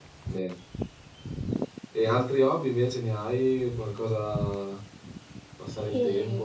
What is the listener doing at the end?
taking over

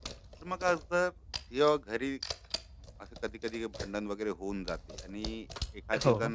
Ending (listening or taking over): listening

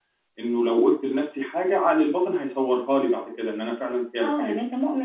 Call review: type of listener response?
taking over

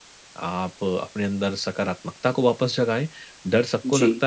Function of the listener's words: listening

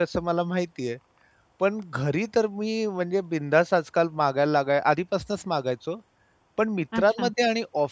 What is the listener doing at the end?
listening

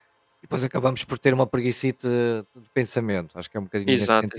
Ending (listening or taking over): listening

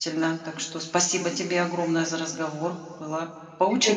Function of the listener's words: taking over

